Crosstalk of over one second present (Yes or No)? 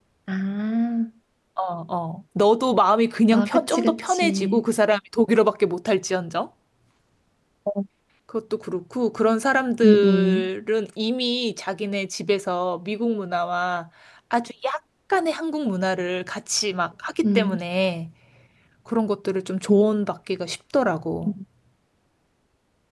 Yes